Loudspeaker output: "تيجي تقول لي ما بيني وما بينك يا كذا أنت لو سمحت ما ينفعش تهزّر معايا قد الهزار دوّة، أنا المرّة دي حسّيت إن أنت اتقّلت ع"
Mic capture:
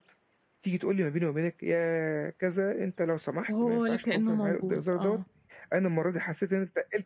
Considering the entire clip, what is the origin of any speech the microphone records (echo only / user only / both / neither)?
both